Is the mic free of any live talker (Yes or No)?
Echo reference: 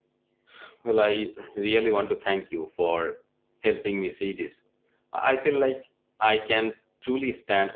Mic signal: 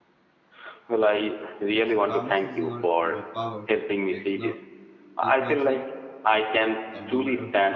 No